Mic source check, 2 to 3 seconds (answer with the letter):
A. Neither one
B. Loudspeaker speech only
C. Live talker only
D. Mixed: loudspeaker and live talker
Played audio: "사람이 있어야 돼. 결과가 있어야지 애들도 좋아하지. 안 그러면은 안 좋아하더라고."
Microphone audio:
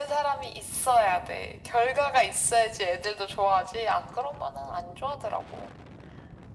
B